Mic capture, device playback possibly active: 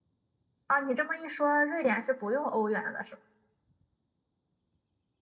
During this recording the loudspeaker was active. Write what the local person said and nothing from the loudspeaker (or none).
啊，你这么一说，瑞典是不用欧元的，是吧？